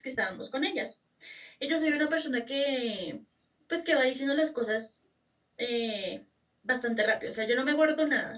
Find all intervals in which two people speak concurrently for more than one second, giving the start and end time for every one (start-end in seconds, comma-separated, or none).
none